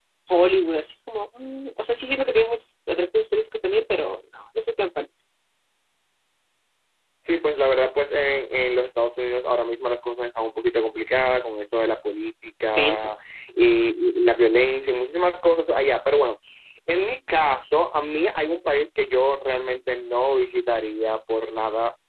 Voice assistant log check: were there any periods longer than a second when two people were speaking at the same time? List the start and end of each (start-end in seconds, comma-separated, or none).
none